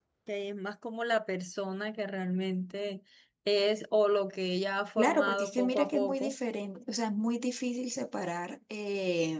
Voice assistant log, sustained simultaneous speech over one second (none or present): present